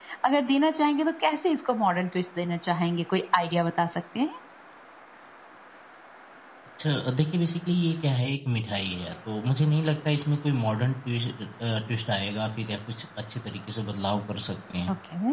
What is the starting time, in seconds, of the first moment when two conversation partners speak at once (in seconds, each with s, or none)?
none